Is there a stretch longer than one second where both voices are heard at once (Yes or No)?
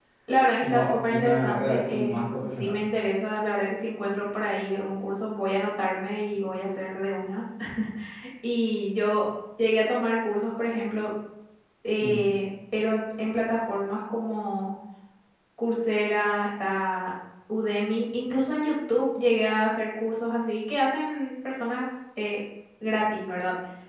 Yes